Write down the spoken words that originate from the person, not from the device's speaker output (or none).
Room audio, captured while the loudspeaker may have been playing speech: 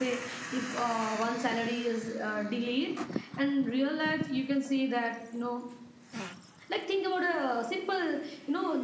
none